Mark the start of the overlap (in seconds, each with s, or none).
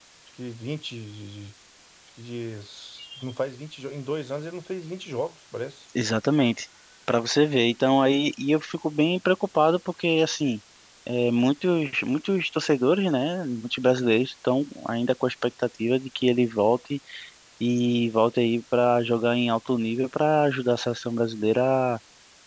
none